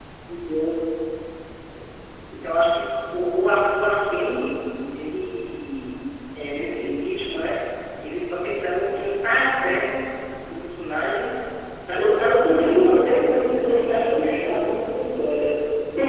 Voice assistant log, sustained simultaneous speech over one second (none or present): present